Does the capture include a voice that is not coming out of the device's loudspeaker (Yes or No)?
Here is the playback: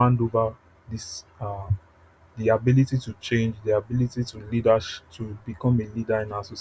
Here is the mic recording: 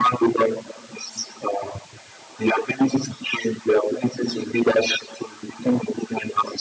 No